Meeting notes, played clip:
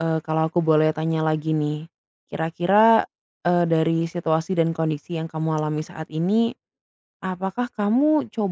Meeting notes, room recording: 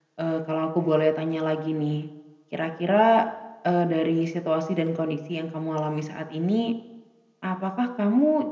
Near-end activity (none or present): none